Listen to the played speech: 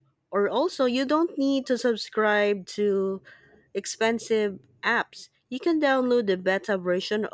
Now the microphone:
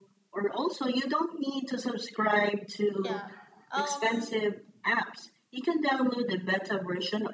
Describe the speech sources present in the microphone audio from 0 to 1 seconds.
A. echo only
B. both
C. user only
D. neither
A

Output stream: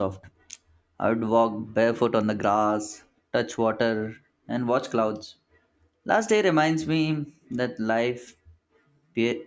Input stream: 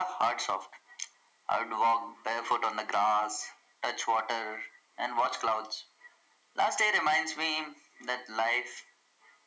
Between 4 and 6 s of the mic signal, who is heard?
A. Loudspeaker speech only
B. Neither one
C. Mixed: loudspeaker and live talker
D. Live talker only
A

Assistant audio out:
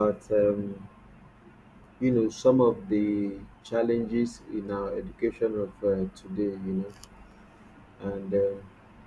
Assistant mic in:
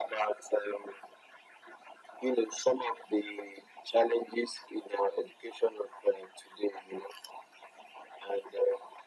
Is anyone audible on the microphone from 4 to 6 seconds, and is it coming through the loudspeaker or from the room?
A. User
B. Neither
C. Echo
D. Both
C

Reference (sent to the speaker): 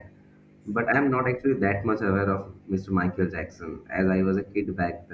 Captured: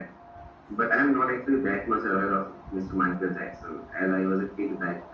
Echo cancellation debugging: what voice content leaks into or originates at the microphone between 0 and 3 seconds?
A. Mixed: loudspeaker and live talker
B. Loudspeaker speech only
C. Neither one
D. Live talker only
B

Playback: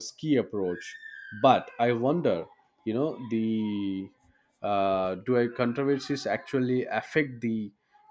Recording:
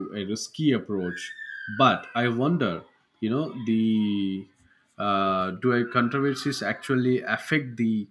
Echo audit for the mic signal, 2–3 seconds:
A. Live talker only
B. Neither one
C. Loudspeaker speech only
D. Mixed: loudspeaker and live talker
C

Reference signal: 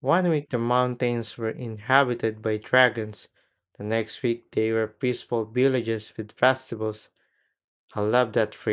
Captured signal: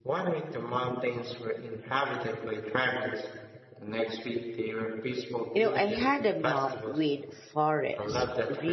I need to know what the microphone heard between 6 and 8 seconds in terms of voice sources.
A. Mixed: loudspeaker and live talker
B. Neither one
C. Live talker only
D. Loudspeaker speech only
A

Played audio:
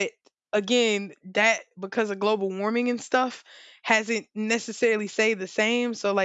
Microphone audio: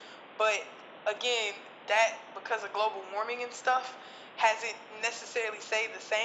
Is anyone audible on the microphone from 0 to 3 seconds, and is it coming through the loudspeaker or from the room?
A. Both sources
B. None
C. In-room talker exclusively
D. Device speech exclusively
D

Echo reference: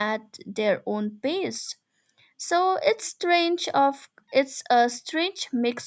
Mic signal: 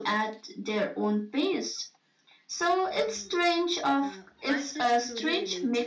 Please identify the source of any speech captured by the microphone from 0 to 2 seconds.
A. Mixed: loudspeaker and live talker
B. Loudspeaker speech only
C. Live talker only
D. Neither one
B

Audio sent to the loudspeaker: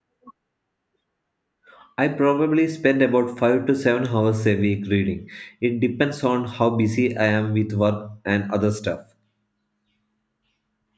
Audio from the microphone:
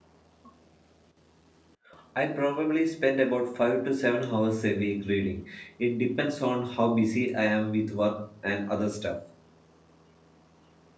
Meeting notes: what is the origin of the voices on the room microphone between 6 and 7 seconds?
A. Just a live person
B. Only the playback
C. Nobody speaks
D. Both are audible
B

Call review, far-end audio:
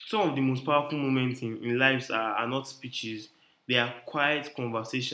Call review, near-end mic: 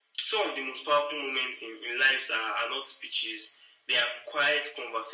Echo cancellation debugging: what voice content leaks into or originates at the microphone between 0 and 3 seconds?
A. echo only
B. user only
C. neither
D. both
A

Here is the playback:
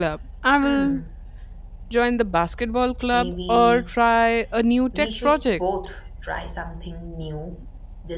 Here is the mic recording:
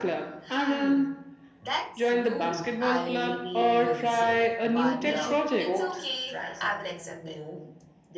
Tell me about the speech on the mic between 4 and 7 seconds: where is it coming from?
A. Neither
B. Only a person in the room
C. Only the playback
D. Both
D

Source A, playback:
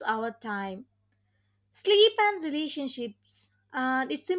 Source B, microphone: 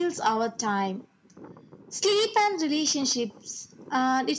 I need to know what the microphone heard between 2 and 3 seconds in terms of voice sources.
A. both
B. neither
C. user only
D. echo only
D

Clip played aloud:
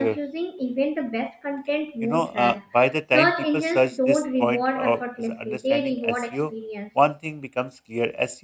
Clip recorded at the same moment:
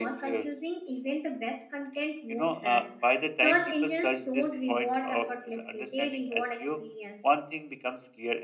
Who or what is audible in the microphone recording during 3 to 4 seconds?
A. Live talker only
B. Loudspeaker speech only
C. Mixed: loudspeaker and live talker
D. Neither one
B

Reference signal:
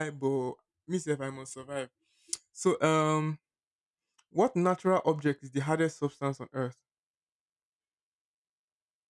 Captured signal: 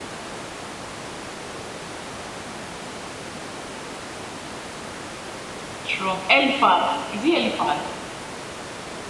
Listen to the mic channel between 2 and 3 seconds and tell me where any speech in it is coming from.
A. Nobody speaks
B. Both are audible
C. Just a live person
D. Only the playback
A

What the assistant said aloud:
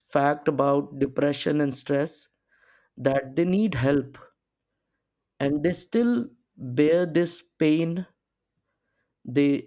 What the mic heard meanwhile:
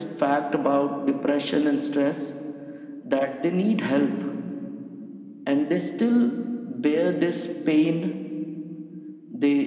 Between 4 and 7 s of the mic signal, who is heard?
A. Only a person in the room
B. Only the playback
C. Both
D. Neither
B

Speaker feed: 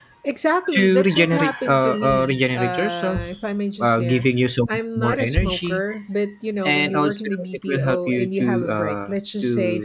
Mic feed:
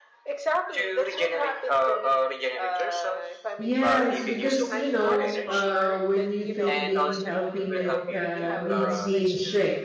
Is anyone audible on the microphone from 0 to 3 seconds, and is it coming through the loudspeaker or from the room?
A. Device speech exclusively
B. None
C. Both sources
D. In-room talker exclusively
A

